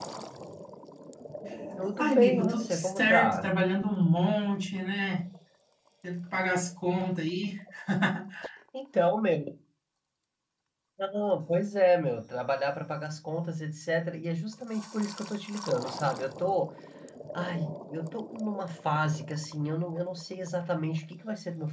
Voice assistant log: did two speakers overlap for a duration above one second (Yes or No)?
Yes